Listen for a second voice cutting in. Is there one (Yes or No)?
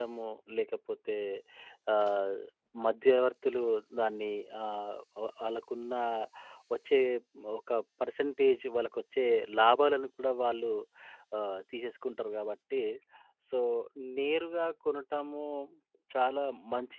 No